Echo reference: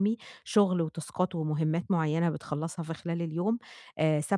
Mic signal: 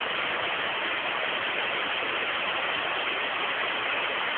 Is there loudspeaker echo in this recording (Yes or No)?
No